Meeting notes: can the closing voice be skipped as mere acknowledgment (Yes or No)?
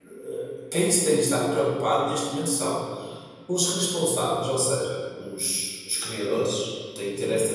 Yes